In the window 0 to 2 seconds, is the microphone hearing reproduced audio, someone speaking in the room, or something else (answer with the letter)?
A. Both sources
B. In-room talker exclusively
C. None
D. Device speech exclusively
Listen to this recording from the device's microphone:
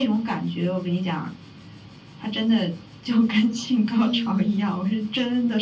D